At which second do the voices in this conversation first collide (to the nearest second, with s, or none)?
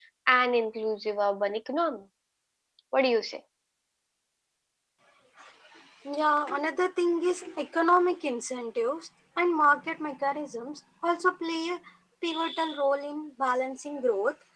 none